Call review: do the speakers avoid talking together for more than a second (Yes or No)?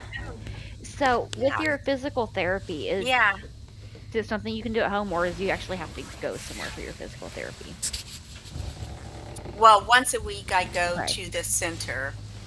Yes